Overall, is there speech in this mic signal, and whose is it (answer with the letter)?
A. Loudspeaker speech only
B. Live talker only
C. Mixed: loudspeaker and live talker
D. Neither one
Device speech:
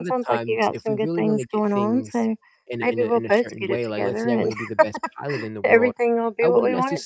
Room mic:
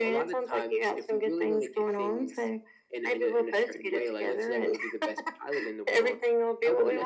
A